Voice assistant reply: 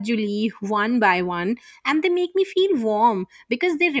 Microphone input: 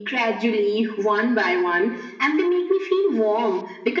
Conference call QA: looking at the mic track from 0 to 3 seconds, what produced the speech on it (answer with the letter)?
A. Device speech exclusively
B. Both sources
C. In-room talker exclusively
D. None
A